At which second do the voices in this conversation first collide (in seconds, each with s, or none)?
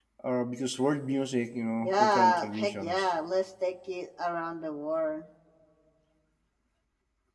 1.8 s